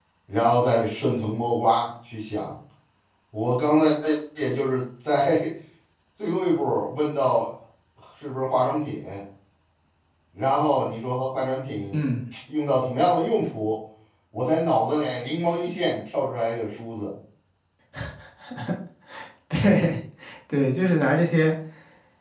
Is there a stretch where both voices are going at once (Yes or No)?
No